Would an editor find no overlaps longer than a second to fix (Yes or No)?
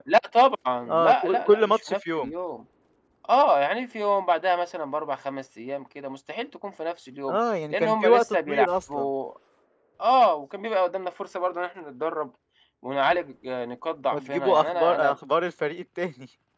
No